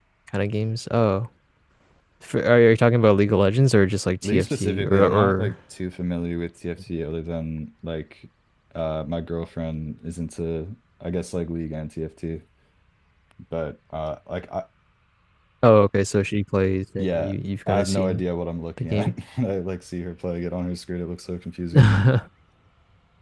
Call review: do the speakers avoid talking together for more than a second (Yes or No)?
No